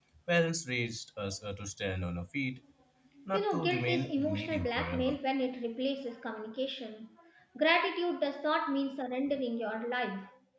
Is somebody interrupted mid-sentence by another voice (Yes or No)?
Yes